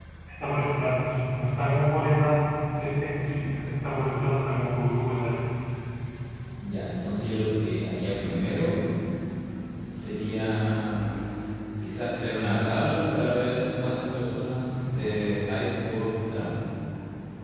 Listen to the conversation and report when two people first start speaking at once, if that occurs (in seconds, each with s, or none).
none